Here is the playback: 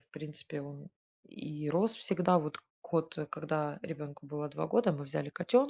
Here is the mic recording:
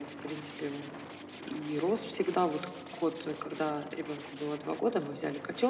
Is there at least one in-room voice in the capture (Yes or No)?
No